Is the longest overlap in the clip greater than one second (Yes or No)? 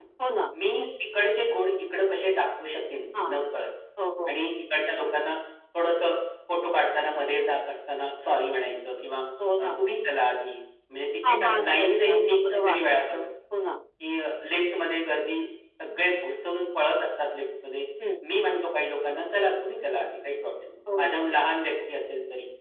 Yes